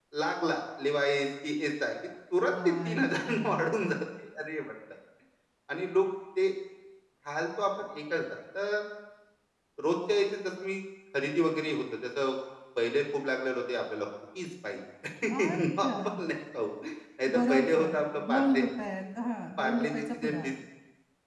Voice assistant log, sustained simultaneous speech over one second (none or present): present